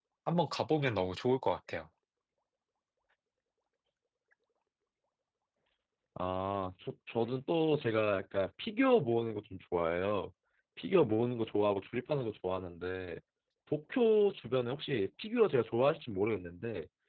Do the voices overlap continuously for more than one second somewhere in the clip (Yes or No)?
No